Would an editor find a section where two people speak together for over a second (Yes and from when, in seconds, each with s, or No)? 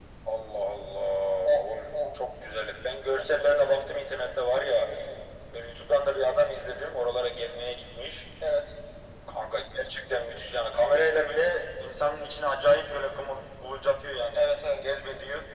No